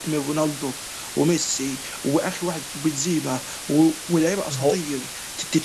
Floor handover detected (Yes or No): No